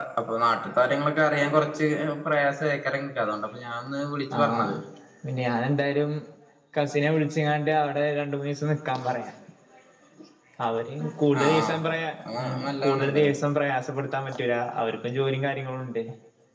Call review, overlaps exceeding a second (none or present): present